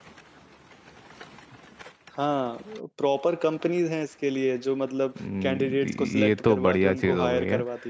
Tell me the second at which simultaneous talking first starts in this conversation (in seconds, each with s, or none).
5.2 s